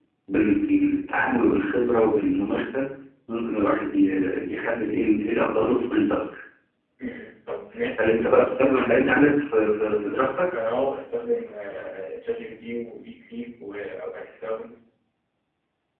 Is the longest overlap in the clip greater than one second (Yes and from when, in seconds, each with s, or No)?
No